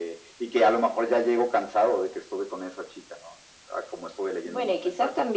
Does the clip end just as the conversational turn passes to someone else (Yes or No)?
Yes